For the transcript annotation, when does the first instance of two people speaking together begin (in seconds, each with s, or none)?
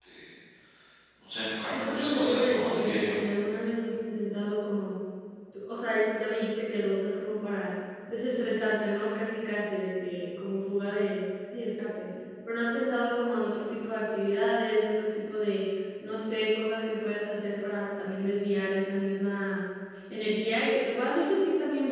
1.7 s